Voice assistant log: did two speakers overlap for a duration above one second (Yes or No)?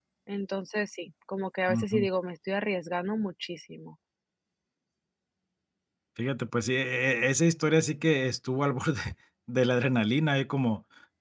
No